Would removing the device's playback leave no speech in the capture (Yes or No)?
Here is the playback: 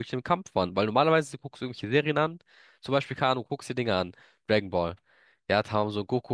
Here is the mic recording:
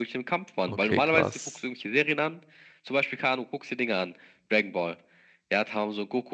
No